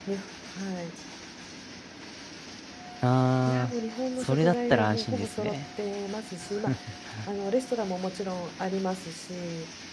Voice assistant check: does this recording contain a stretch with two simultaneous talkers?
Yes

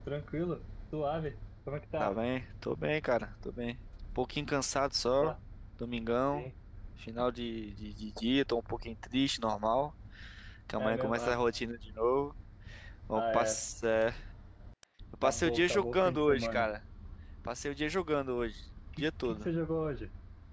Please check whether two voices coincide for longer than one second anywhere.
Yes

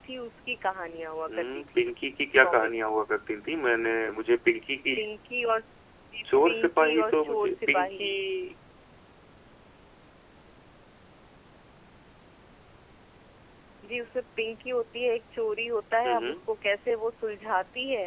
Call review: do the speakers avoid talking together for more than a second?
No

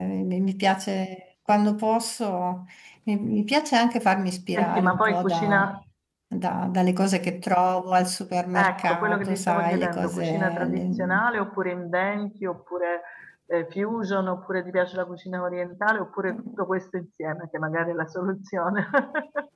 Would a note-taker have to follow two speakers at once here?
Yes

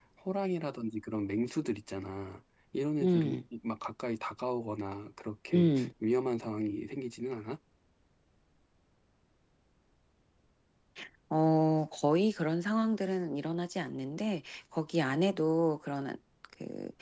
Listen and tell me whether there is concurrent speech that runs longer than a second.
No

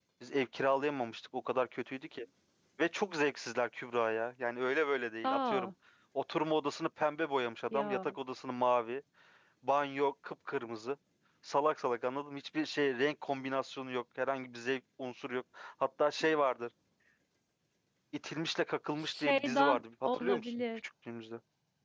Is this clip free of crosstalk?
No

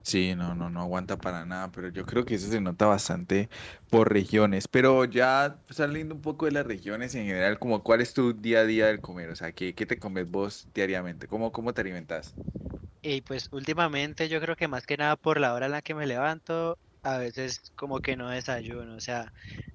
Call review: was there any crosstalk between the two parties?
No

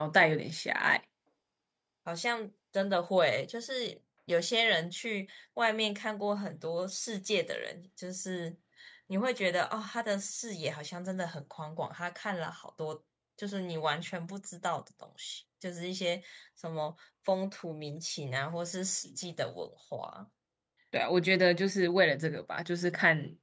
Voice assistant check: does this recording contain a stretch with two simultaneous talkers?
No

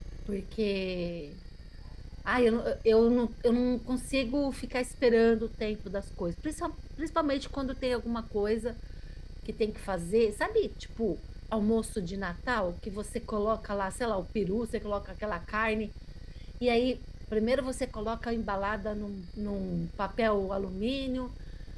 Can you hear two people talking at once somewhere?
No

